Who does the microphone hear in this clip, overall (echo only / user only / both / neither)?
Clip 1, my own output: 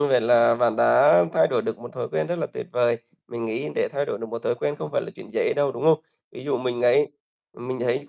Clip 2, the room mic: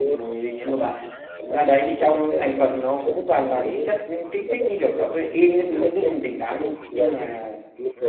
both